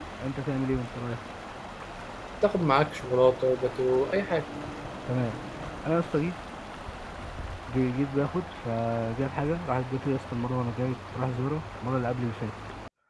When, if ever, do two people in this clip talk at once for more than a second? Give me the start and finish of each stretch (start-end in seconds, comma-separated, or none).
none